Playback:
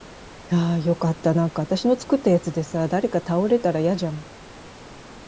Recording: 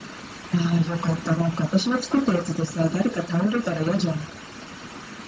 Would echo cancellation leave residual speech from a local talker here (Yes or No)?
No